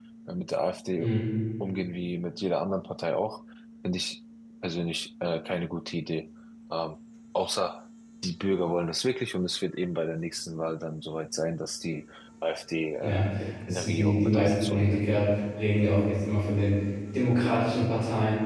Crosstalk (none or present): present